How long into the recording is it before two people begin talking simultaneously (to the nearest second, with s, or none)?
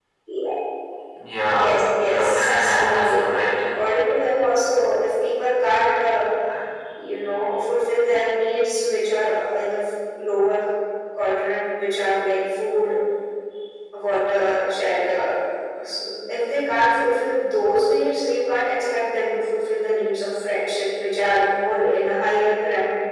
1 s